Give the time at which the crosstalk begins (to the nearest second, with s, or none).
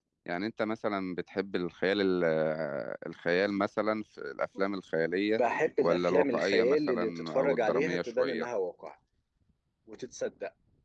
6 s